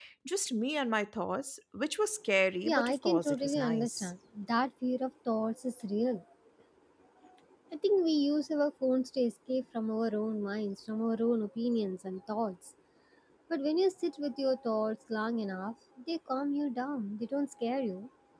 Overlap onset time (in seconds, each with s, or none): 2.6 s